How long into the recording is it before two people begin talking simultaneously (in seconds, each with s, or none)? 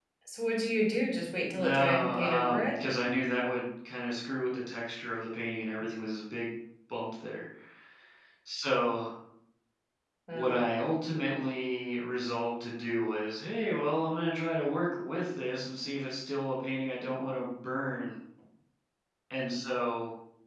1.5 s